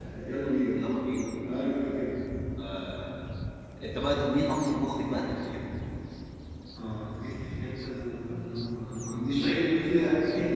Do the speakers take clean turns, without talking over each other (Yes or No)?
Yes